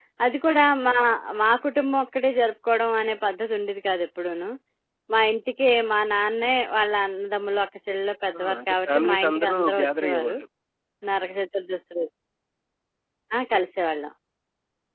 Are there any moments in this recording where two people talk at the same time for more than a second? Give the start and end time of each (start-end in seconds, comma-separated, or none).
8.4-10.4